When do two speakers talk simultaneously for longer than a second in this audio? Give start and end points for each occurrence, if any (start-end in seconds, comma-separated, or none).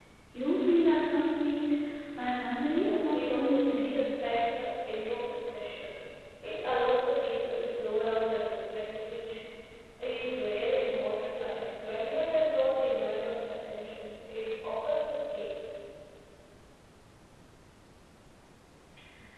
2.7-3.9